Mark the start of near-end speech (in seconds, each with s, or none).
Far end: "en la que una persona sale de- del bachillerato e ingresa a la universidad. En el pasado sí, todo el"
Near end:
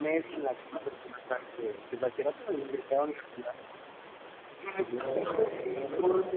4.7 s